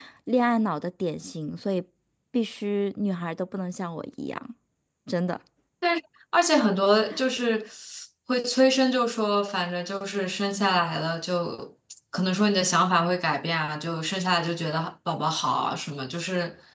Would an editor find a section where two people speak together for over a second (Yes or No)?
No